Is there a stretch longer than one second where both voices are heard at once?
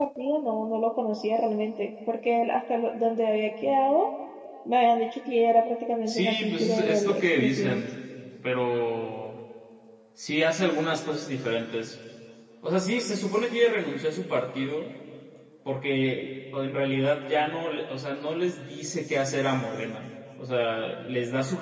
Yes, from 6.1 s

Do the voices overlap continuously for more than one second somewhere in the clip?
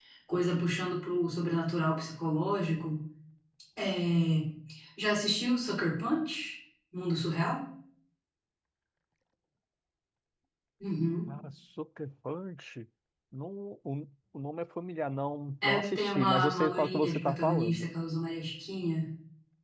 Yes, from 15.6 s

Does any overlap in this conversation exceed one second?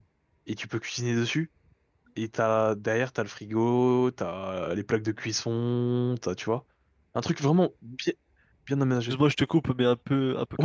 No

